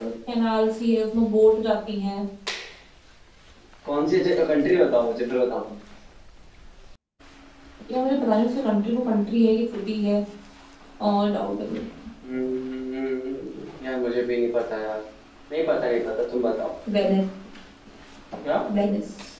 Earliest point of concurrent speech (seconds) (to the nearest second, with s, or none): none